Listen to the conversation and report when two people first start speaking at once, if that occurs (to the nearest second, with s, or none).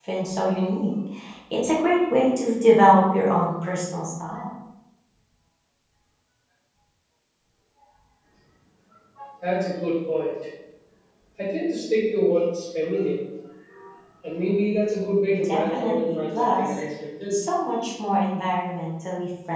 15 s